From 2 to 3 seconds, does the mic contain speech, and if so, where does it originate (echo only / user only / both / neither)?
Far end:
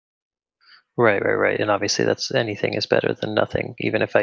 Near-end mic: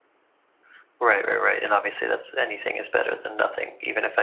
echo only